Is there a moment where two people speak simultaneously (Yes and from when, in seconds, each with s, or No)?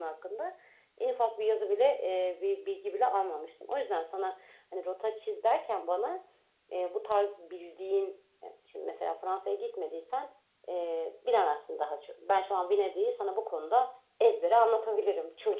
No